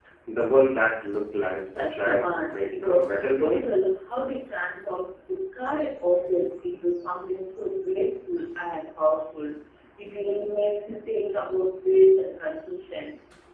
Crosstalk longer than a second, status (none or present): present